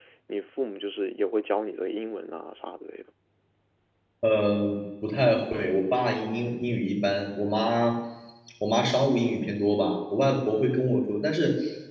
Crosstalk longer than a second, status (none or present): none